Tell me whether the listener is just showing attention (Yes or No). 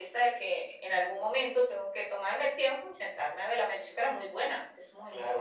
No